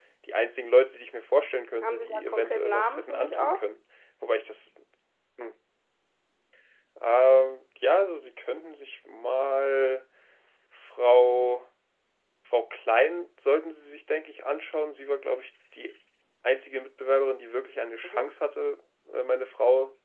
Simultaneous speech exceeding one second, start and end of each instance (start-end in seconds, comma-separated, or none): 1.8-3.6